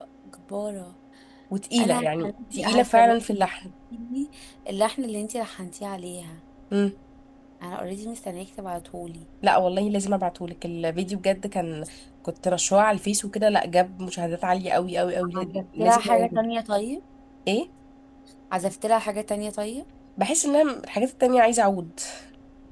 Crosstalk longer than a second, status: present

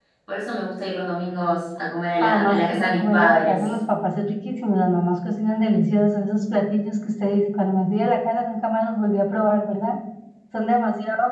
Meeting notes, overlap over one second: present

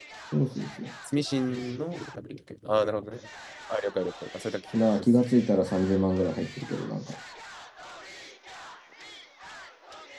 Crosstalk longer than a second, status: none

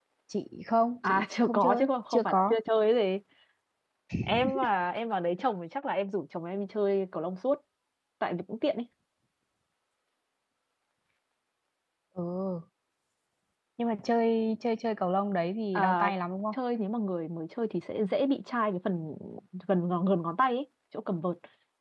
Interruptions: present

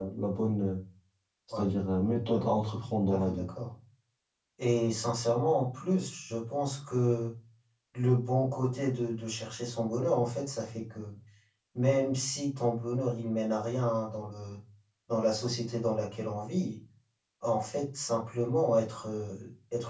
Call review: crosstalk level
present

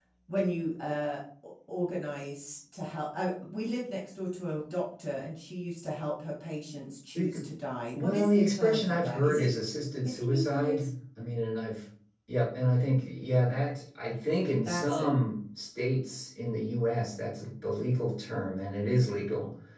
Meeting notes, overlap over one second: present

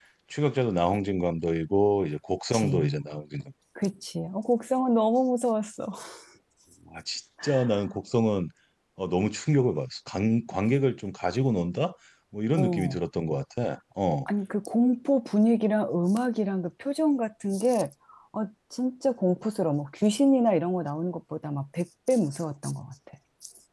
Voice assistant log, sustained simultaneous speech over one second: none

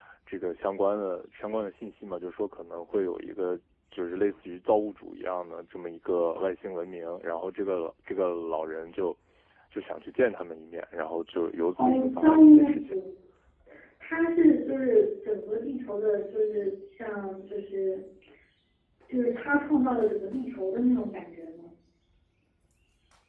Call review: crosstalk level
present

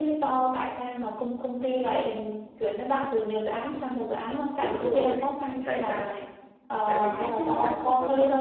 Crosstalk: present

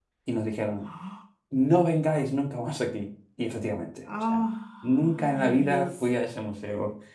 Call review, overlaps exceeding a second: present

